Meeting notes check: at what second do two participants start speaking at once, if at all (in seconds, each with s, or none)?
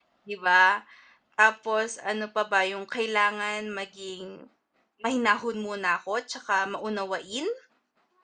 none